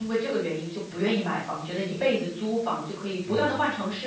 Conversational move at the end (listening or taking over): listening